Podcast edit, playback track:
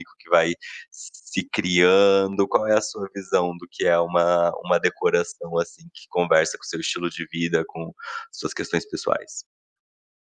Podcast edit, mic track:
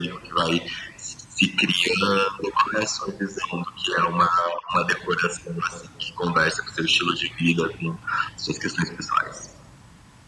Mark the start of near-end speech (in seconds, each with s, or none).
none